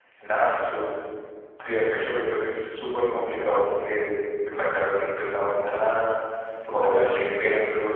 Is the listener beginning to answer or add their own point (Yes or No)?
No